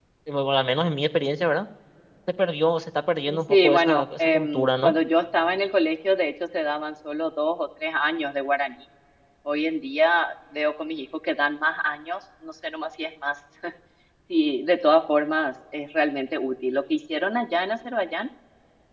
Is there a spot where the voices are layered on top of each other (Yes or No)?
Yes